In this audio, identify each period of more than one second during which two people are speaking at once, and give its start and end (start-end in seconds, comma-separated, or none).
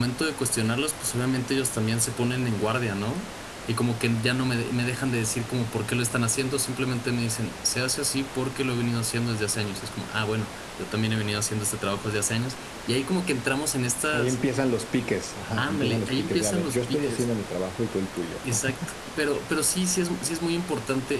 15.6-17.3